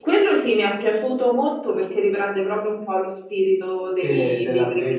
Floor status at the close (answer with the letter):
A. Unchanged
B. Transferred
B